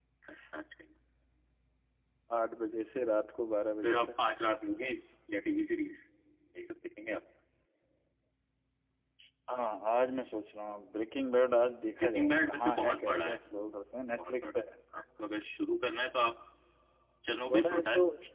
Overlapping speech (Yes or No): Yes